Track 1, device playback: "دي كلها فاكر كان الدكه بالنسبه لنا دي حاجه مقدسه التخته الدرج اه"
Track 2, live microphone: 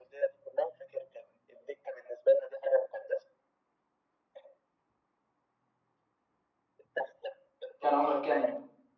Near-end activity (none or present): present